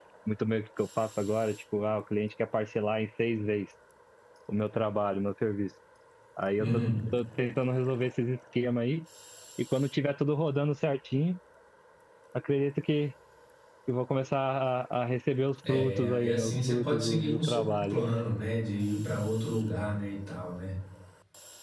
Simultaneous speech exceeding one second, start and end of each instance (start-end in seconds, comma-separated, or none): 15.7-18.0